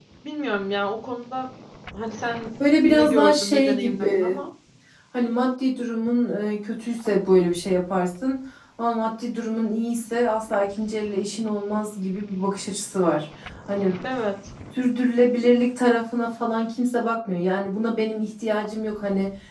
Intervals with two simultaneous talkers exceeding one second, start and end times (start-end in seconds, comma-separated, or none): 2.8-4.4